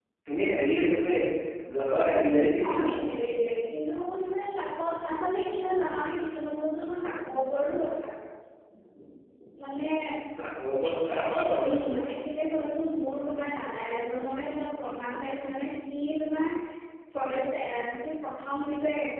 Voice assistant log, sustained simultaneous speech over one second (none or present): none